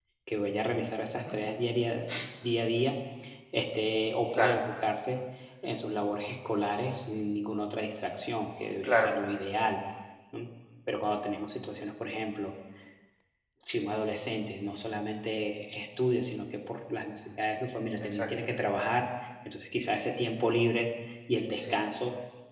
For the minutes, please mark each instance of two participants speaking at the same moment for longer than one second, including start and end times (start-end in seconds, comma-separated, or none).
none